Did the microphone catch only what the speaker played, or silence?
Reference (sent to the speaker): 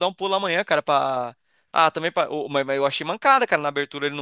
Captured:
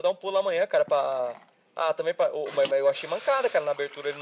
Yes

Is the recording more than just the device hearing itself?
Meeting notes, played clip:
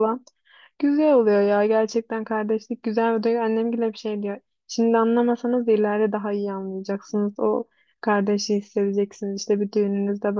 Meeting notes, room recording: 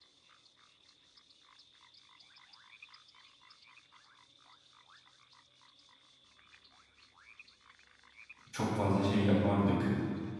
Yes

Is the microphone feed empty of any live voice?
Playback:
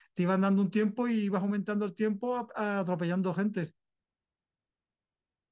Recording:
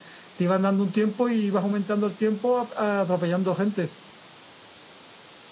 Yes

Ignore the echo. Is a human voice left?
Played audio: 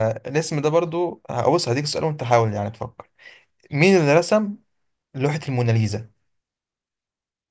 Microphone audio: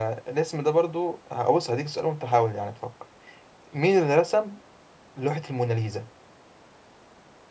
No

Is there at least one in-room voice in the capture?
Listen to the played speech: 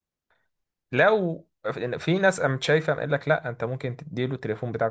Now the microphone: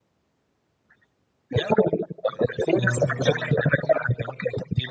Yes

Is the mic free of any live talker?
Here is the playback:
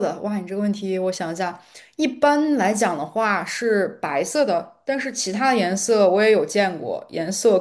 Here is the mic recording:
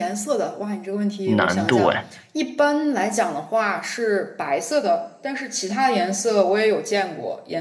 No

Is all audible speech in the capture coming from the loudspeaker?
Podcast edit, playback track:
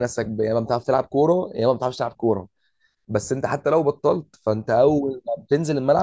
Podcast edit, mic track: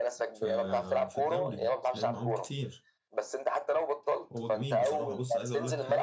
No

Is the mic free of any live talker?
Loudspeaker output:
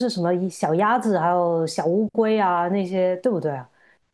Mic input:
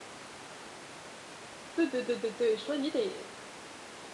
No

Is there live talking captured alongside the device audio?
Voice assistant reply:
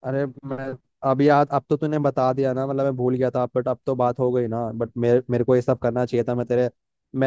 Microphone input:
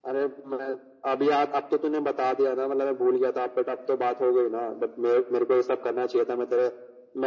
No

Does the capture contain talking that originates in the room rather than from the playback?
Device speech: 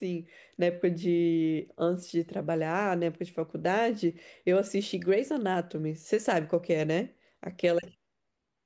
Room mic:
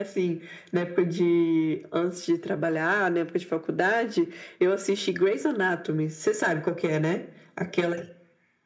No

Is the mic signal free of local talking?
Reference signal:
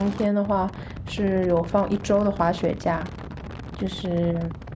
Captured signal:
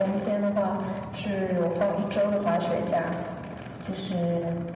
Yes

